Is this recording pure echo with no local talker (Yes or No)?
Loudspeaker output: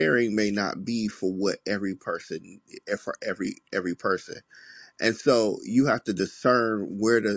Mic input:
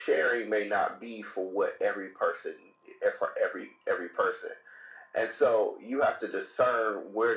Yes